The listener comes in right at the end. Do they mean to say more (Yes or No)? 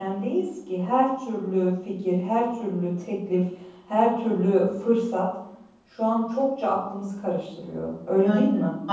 Yes